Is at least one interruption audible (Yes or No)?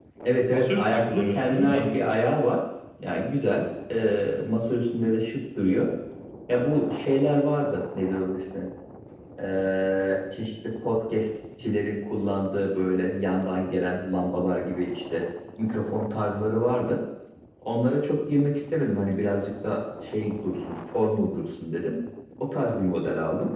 Yes